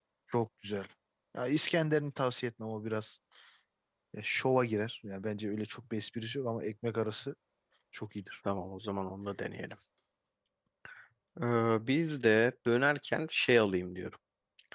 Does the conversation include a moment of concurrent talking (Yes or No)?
No